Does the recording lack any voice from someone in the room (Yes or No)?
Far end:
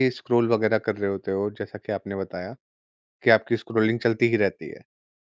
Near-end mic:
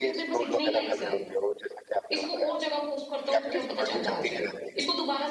No